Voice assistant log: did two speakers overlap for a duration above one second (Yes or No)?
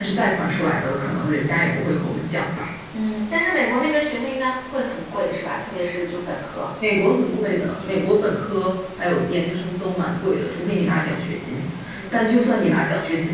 No